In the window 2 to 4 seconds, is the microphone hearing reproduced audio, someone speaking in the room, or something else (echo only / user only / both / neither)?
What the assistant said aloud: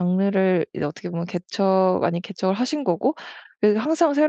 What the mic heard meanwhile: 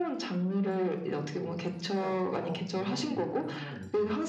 both